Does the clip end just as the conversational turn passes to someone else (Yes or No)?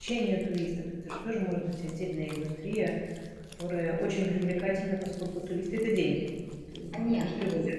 Yes